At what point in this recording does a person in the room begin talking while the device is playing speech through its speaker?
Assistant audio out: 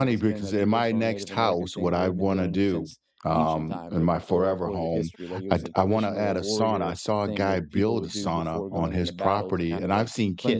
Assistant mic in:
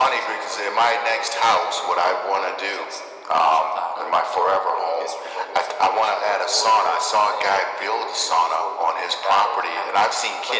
none

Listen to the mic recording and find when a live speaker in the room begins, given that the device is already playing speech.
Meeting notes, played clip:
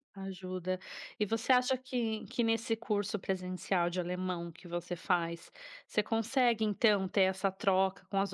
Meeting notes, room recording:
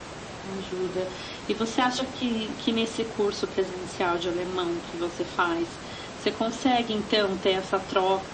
none

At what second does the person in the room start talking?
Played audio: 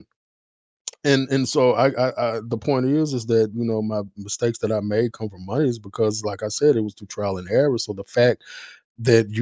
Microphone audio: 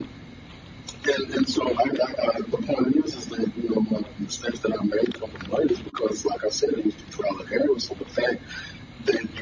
none

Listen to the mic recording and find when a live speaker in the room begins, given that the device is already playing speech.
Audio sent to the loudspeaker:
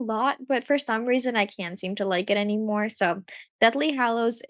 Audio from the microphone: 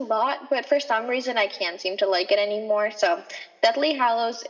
none

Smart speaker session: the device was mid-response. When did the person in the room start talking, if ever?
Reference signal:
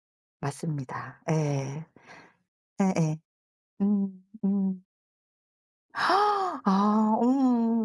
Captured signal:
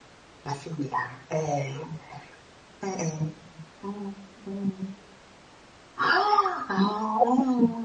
none

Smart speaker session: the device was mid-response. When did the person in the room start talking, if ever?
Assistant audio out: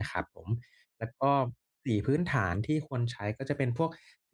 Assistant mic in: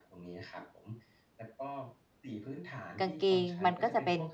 3.0 s

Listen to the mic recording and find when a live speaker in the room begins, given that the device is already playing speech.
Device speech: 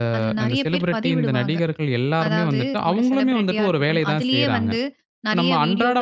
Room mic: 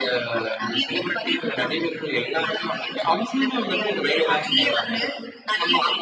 none

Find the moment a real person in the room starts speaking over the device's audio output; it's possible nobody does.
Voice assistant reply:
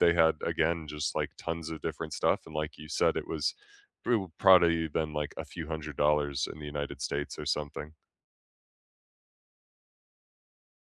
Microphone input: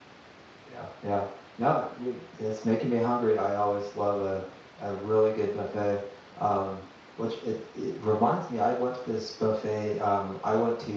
0.7 s

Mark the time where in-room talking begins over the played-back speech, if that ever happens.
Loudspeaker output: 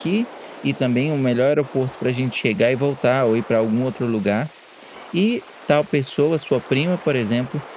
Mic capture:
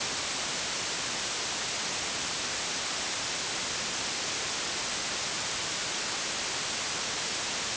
none

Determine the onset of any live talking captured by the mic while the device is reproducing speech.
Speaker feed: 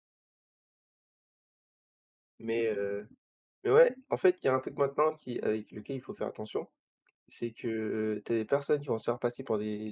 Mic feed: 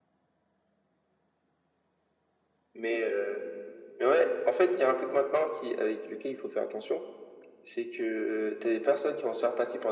none

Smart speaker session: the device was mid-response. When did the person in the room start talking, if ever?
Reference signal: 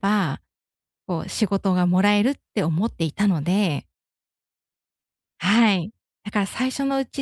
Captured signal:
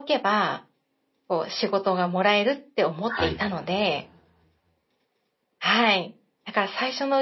3.1 s

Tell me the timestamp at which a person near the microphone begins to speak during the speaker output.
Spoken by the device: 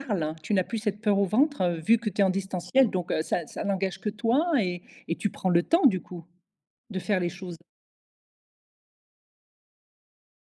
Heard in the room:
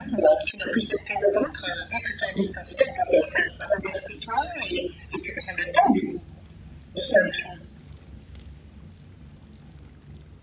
none

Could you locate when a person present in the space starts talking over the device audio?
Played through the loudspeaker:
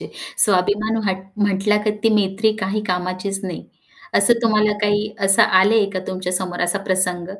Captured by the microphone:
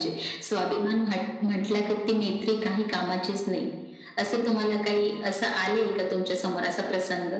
none

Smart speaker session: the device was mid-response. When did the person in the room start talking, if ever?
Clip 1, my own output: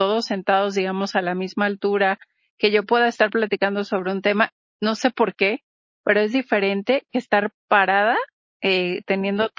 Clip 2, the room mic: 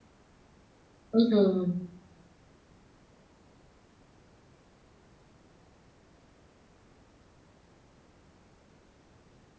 1.1 s

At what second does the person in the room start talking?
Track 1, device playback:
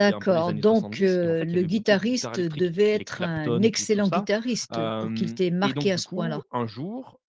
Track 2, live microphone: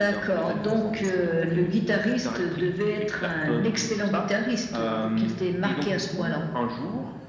none

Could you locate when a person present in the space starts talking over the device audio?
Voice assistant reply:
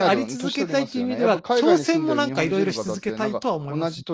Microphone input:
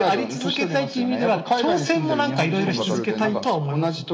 2.6 s

